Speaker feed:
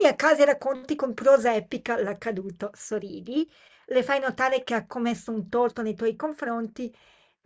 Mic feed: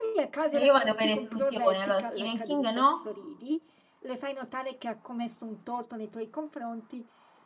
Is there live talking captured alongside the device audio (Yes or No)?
Yes